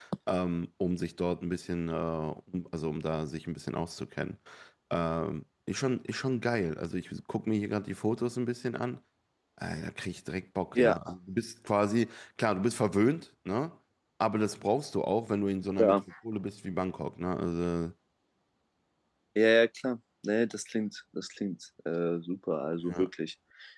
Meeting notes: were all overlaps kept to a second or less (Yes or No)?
Yes